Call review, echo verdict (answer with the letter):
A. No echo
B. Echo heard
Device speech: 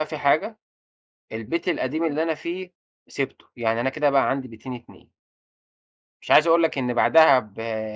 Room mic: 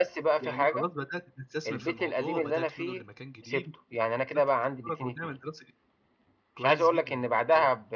B